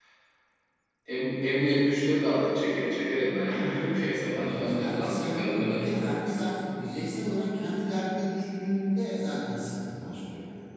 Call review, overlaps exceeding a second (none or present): present